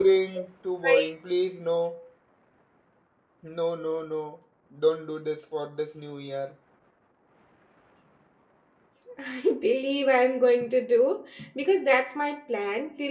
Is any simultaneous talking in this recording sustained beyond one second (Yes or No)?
No